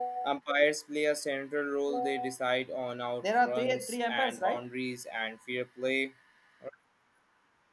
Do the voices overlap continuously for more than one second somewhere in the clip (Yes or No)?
Yes